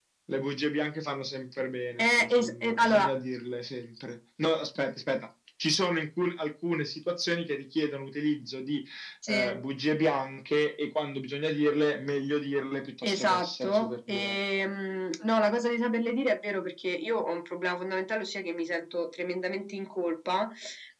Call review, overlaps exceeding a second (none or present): present